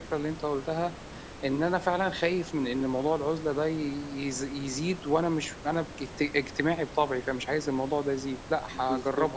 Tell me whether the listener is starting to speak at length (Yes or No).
Yes